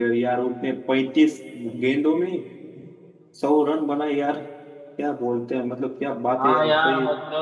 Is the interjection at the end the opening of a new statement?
Yes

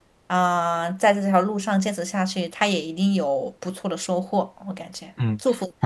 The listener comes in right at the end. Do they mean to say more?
Yes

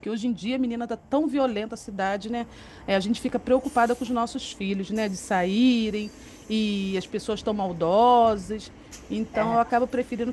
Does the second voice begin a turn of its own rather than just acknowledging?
No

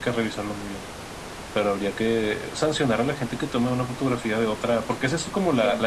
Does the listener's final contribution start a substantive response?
No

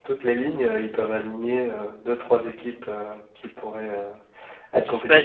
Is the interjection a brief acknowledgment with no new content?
No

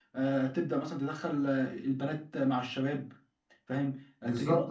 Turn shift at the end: No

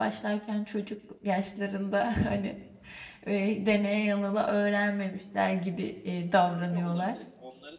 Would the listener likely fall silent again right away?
No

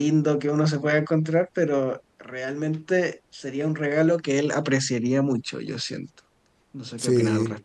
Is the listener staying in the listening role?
No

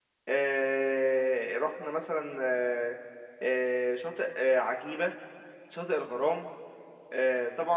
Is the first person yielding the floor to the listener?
No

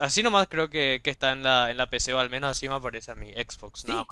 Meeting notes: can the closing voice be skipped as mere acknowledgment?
No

